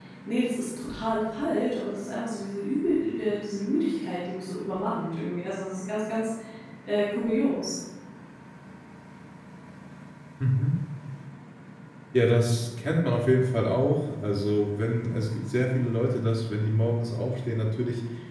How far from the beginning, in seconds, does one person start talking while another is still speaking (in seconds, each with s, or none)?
none